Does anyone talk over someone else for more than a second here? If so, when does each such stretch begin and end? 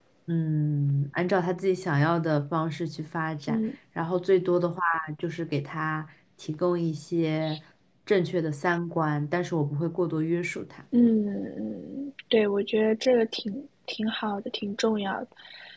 none

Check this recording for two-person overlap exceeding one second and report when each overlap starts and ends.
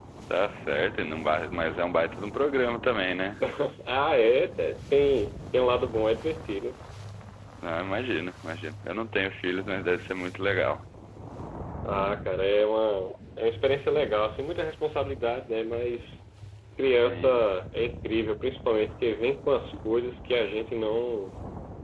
none

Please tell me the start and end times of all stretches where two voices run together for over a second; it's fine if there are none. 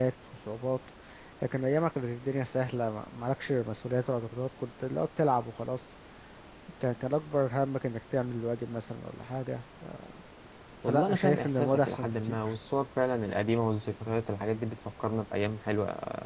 10.9-12.4

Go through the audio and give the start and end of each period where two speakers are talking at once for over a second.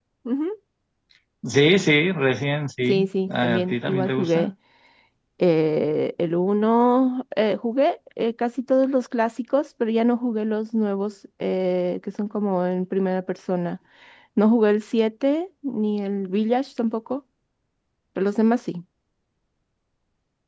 2.9-4.5

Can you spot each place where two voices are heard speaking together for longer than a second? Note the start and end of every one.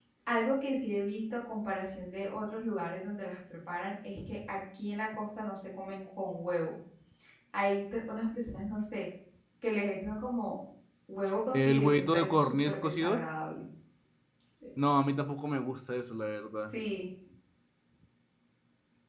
11.5-13.2

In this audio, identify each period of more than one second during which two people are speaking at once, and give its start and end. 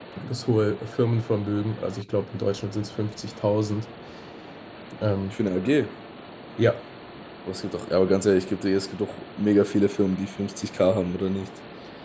none

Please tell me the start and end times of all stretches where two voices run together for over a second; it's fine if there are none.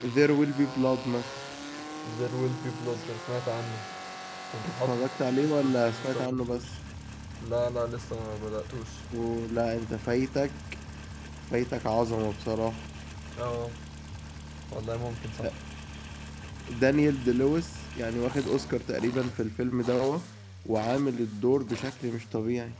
4.7-6.7

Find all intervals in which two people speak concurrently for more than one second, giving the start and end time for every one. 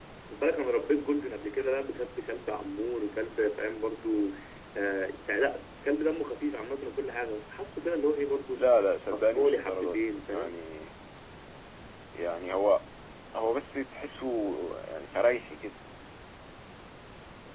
9.1-10.6

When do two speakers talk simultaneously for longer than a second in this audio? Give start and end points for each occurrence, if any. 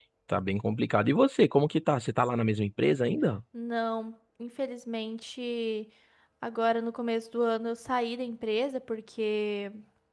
none

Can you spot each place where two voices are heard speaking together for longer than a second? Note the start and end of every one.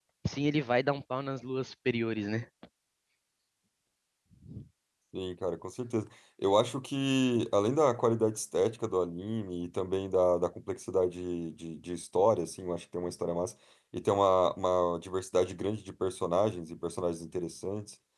none

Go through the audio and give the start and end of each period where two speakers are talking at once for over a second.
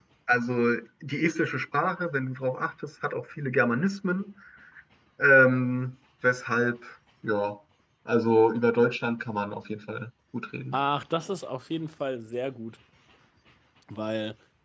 none

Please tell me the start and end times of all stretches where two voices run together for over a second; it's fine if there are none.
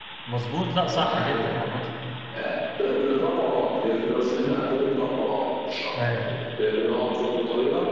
none

